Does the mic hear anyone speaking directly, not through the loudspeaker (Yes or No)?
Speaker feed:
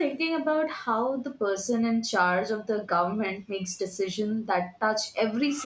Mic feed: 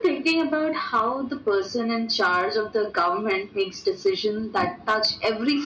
No